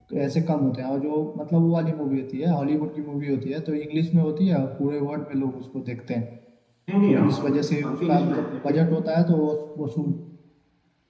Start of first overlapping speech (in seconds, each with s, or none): 7.1 s